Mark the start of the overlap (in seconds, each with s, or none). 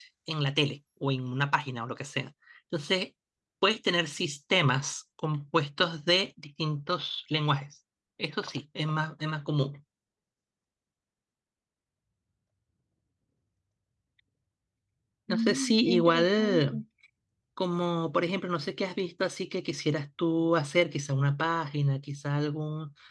15.3 s